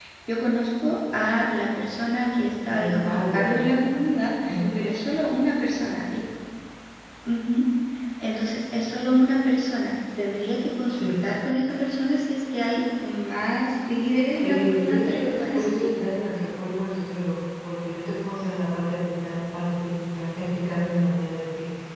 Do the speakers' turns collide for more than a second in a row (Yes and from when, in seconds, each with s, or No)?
Yes, from 2.7 s